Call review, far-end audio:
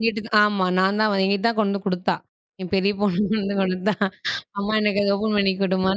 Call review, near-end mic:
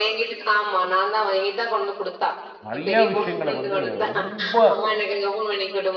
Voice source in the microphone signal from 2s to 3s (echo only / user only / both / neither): both